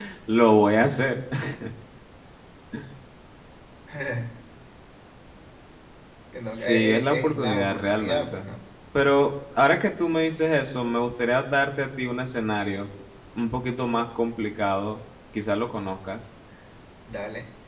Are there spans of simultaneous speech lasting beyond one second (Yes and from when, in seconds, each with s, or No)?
Yes, from 6.5 s